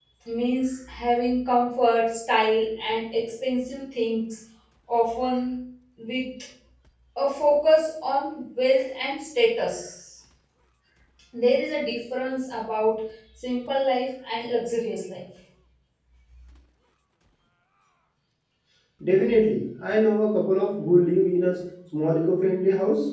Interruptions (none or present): none